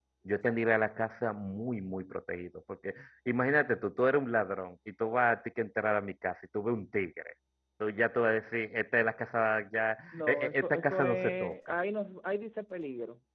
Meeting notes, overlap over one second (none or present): present